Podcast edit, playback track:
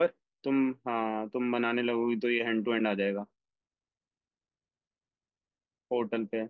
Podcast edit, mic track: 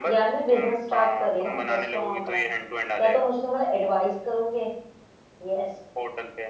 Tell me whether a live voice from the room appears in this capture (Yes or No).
Yes